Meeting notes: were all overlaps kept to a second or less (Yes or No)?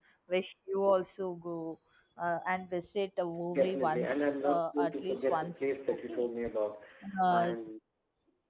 No